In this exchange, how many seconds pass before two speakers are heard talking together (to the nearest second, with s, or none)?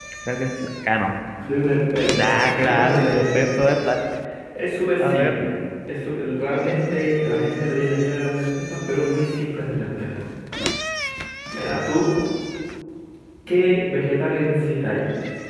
2 s